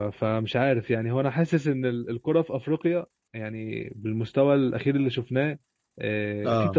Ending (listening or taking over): listening